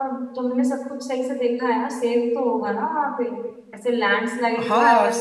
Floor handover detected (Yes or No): Yes